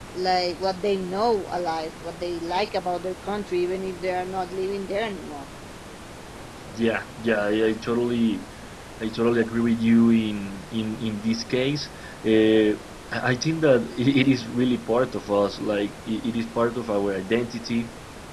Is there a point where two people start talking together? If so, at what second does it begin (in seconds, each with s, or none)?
none